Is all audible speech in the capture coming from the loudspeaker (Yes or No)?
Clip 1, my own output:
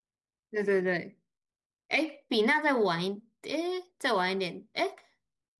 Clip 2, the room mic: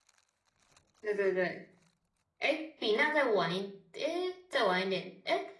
Yes